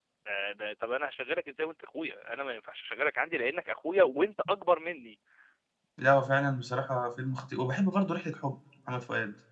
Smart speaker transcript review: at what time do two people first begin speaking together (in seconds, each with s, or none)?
none